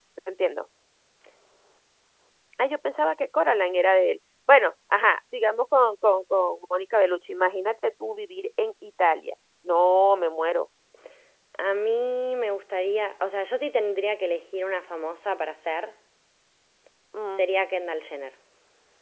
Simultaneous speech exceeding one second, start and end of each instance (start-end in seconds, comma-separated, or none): none